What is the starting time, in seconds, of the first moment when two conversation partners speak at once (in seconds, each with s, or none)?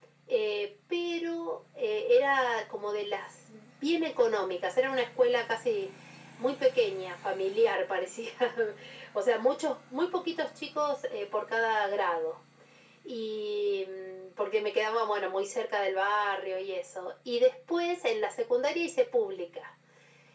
none